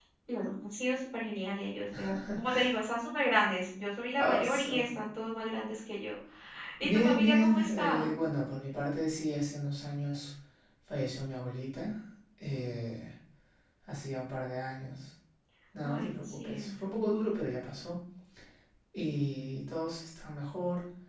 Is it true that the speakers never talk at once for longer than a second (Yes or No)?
No